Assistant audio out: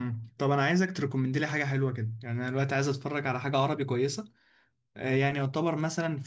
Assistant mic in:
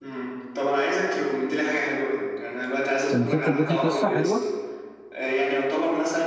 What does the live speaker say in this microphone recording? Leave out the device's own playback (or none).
المسلسل ده فيه قصه حلوه